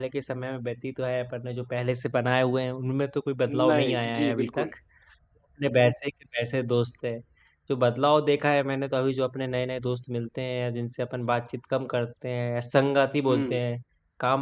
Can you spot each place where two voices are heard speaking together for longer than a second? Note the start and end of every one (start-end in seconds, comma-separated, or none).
3.5-4.7